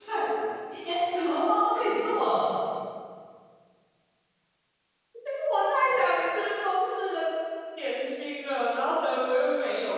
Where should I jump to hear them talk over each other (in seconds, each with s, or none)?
none